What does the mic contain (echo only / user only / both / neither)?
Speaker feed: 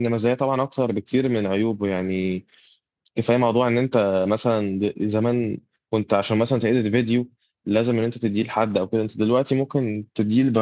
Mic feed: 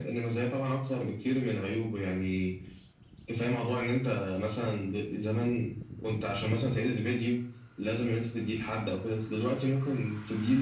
echo only